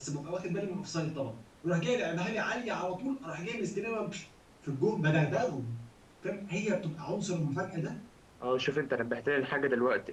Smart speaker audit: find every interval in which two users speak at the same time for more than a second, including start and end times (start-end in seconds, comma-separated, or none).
none